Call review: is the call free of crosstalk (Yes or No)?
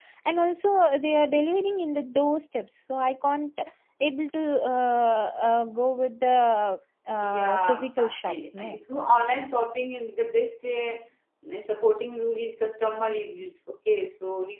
No